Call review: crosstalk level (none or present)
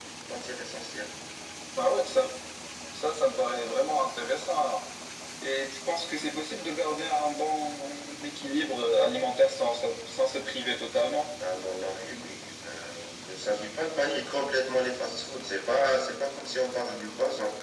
none